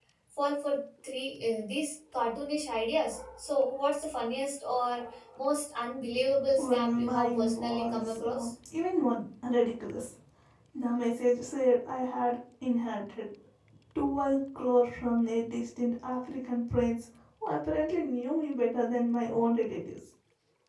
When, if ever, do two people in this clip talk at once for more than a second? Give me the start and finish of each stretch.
6.6-8.5

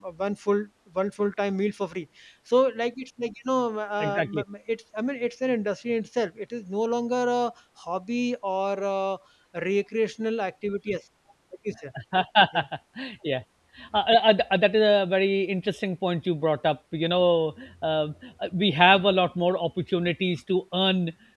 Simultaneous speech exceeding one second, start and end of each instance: none

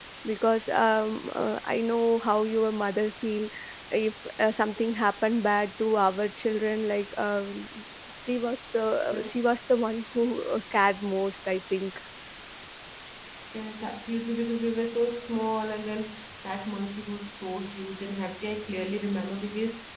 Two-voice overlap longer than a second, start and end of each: none

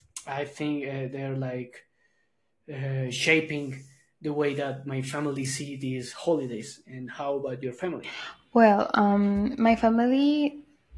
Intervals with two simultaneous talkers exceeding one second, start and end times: none

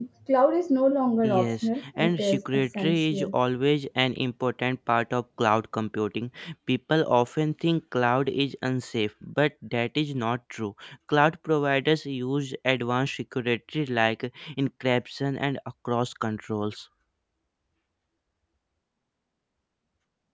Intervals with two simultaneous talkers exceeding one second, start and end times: 1.2-3.4

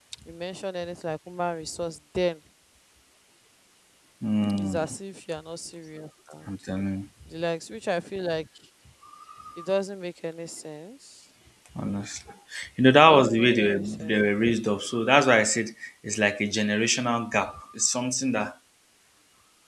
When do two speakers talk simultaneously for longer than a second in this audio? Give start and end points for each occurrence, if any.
13.0-14.2

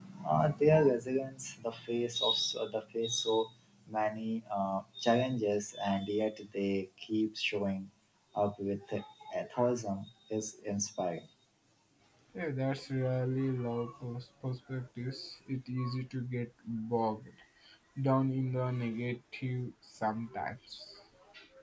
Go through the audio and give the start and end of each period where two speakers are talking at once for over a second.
none

